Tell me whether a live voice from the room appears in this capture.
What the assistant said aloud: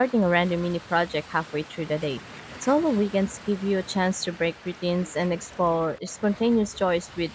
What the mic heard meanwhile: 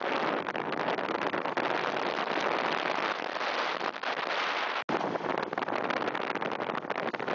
No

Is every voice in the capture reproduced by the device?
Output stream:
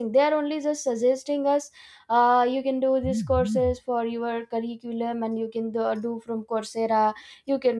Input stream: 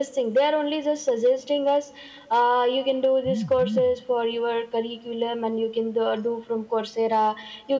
Yes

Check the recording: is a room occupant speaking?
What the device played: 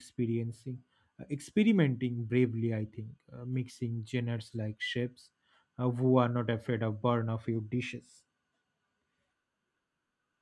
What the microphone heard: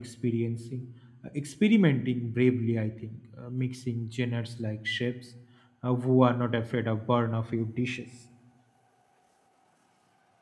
No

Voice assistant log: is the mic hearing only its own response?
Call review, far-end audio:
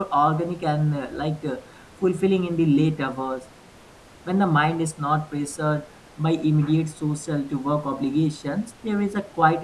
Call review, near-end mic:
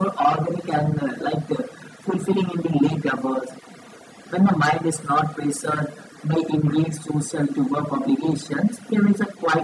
Yes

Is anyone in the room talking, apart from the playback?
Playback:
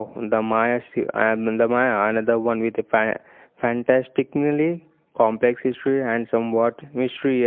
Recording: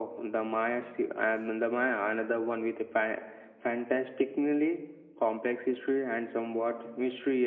No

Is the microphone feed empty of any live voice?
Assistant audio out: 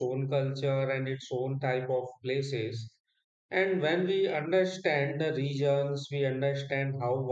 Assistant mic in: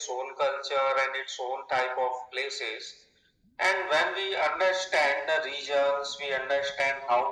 Yes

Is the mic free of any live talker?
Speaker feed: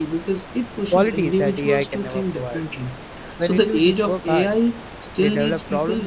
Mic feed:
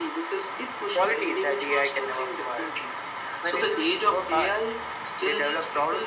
Yes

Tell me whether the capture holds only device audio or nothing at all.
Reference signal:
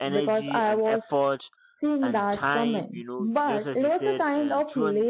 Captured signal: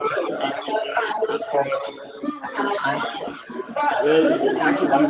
No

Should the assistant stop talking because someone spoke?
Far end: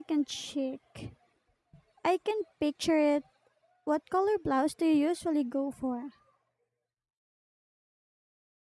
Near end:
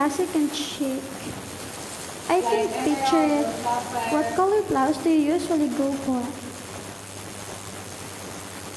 Yes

